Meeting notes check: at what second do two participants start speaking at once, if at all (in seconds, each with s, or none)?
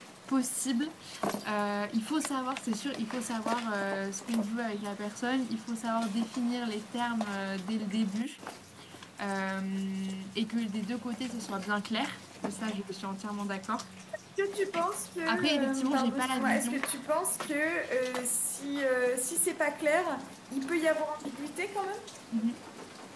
15.3 s